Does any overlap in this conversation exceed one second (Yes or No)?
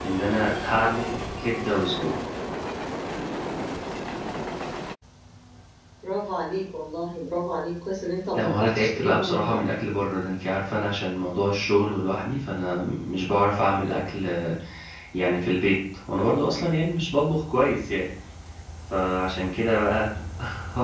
Yes